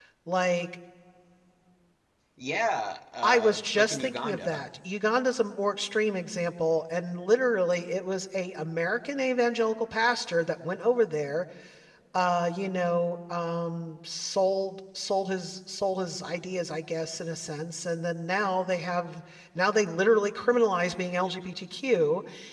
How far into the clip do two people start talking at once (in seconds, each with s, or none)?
3.2 s